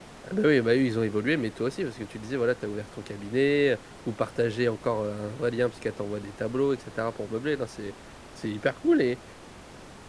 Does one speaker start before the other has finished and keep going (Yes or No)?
No